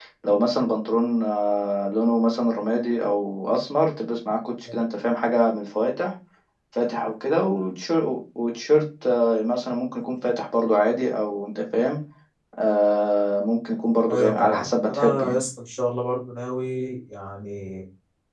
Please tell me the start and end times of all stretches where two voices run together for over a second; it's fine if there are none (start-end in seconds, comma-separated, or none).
14.1-15.4